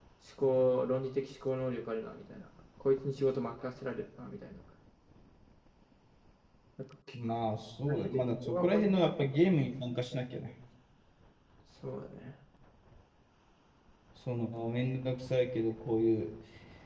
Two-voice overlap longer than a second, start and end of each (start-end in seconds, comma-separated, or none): 7.9-9.1